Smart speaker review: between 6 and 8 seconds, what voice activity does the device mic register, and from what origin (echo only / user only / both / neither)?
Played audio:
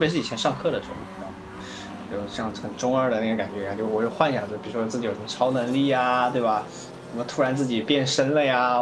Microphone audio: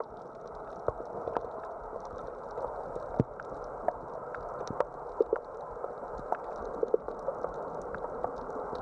neither